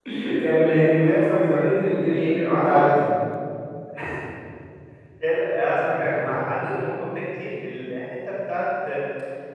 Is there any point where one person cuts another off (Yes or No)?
Yes